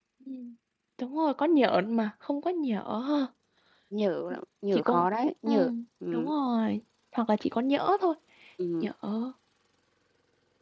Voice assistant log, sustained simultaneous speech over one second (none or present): none